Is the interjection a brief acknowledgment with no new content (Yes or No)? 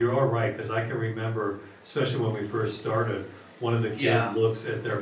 Yes